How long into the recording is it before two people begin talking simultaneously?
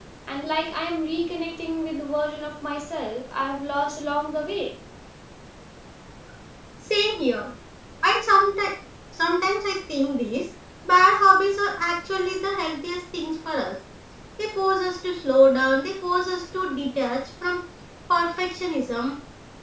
none

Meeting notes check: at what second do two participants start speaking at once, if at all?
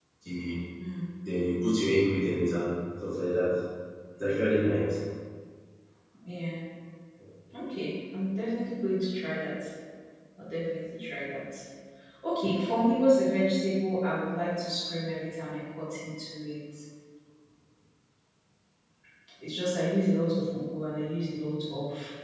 none

